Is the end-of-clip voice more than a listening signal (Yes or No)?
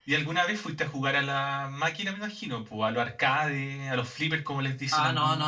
Yes